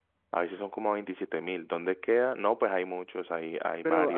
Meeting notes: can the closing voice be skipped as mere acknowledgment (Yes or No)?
No